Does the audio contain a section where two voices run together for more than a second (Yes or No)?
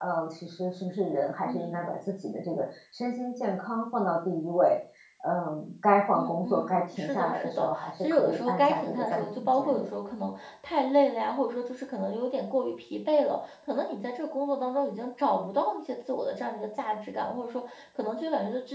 Yes